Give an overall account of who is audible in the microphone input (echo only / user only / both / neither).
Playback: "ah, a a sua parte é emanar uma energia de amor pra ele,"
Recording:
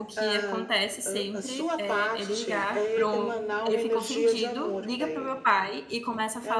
both